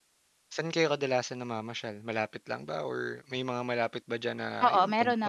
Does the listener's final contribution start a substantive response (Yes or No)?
Yes